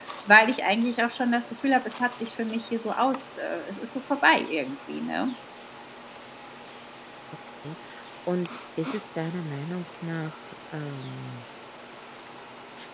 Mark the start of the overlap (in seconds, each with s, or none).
none